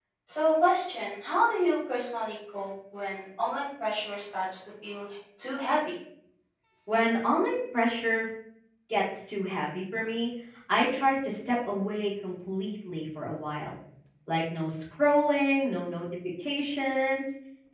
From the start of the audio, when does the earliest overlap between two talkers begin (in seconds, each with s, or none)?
none